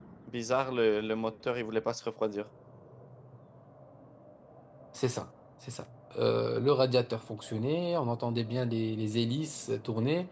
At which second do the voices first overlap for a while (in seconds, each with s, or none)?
none